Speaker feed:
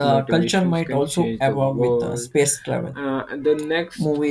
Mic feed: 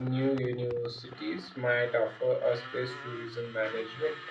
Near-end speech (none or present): present